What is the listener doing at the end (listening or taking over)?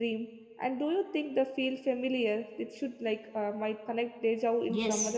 taking over